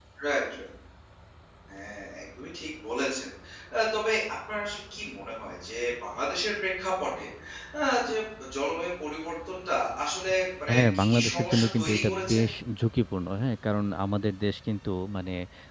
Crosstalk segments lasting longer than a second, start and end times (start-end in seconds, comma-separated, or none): 10.7-12.4